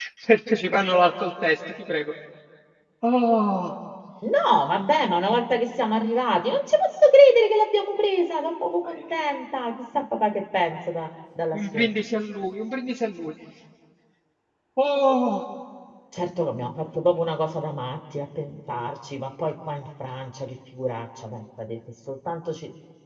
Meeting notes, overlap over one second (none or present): none